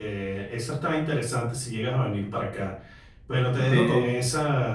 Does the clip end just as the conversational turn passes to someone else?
No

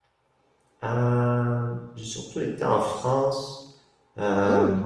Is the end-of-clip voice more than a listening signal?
No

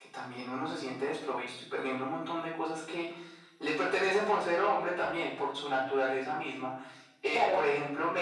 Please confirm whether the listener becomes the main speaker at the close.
No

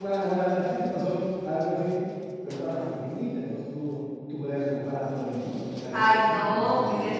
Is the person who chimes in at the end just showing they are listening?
No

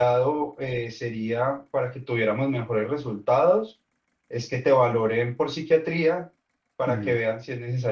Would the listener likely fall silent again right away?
Yes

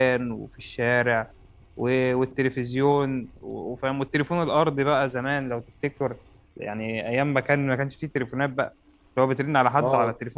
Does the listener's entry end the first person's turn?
No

